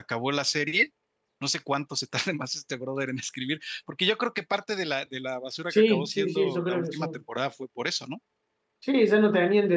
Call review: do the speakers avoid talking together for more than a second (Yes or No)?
No